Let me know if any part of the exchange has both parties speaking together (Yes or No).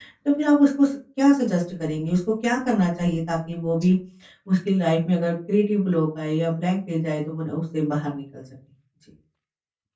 No